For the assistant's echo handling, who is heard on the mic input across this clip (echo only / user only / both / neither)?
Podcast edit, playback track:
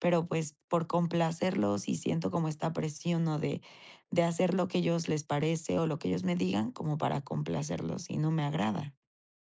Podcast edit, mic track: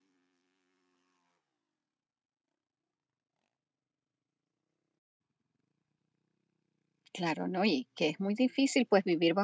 user only